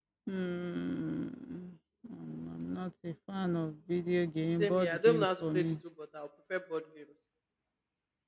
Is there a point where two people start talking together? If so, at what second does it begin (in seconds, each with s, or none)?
4.5 s